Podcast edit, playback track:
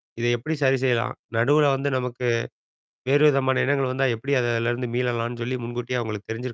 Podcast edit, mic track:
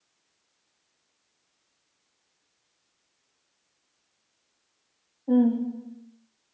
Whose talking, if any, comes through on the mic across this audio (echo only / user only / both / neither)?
user only